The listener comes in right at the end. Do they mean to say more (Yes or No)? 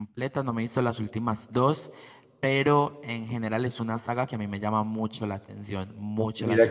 Yes